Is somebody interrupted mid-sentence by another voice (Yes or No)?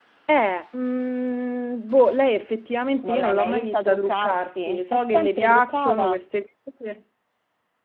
Yes